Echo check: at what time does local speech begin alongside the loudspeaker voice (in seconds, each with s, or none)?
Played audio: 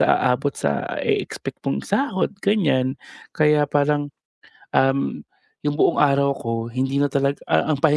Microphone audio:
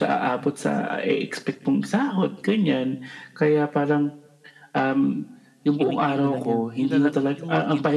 5.8 s